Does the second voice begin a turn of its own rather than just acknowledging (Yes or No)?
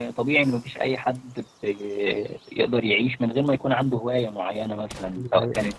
No